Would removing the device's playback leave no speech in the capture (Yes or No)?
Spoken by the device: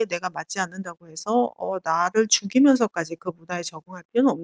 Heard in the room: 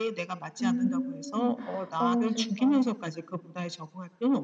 No